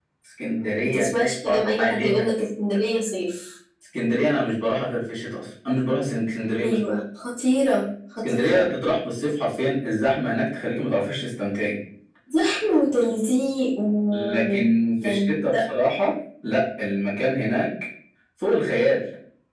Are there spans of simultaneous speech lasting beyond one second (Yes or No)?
Yes